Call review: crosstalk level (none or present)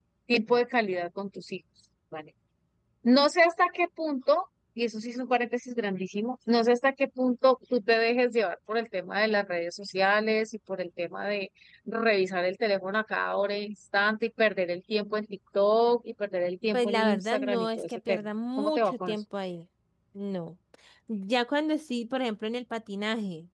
present